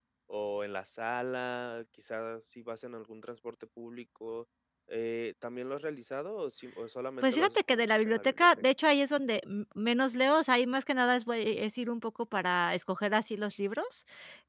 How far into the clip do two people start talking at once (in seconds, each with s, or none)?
7.2 s